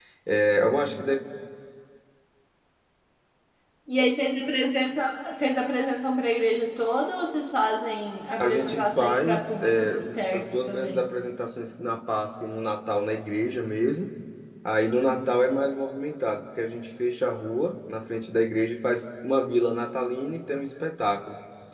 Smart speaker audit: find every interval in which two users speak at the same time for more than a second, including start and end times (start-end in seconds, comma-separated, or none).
8.4-11.0